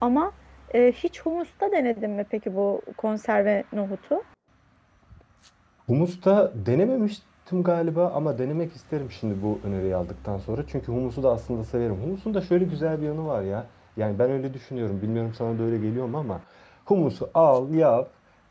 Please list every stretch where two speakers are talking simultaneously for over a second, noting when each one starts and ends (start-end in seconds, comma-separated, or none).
none